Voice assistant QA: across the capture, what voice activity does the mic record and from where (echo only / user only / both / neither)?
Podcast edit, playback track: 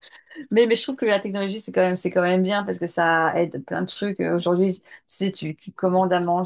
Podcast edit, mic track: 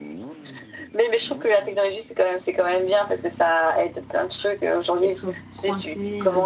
both